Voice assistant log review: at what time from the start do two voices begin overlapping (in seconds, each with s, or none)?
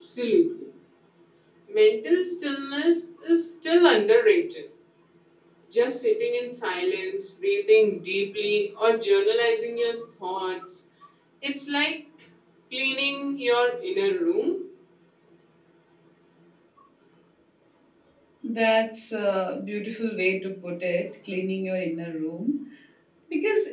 none